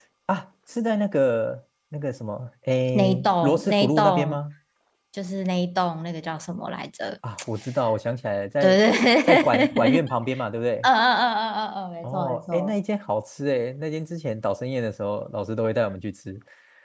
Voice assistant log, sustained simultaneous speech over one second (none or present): present